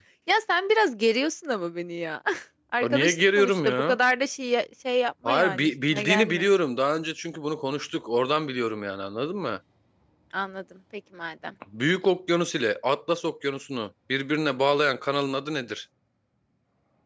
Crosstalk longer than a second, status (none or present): present